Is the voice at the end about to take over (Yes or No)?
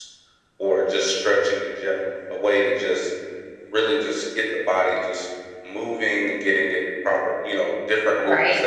Yes